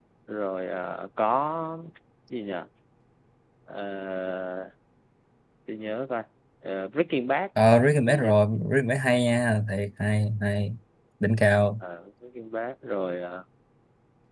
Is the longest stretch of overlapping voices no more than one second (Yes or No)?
Yes